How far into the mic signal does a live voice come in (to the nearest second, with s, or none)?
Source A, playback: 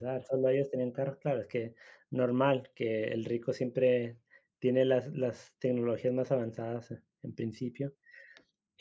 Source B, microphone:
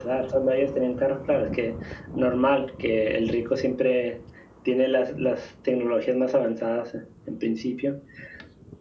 none